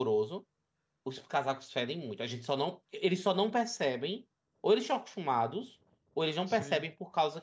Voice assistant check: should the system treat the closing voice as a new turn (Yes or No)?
No